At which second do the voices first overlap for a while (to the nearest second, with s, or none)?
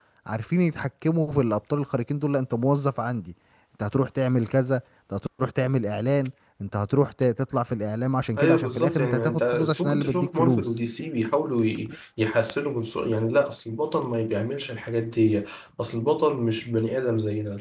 8 s